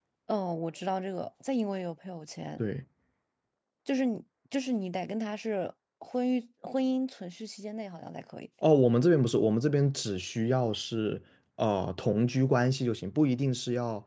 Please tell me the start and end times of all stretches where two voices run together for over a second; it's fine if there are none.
none

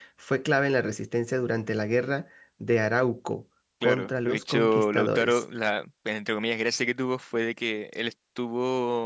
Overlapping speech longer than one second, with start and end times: 3.8-5.4

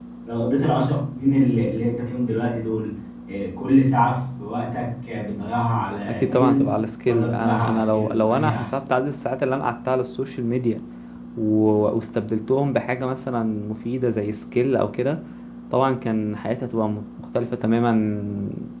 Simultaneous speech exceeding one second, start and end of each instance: 6.1-8.7

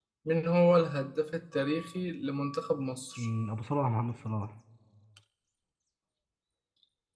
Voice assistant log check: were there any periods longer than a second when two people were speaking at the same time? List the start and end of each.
none

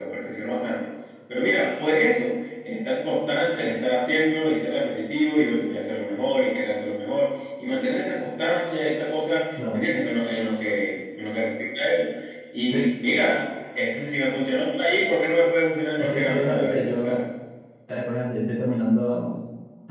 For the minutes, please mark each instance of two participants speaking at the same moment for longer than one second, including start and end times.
16.0-17.2

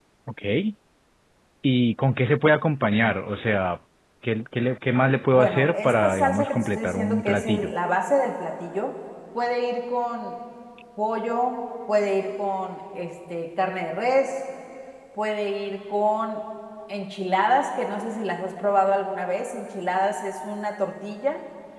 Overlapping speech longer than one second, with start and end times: 5.3-7.7

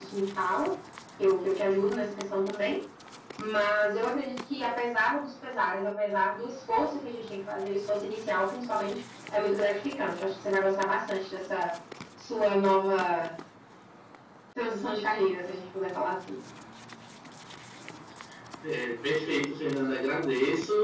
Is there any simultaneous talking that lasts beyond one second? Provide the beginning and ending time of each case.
none

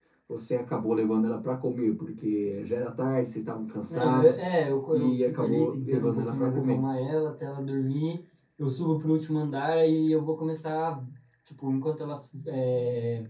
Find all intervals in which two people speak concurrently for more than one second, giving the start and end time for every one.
4.9-6.8

